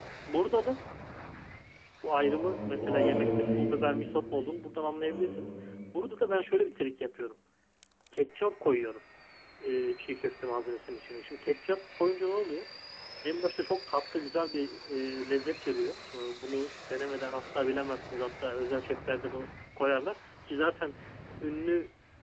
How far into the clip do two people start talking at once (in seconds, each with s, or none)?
2.1 s